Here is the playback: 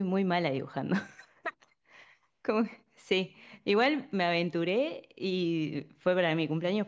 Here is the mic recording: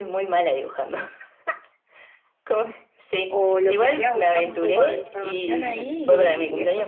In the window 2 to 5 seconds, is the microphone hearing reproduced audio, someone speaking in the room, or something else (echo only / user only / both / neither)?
both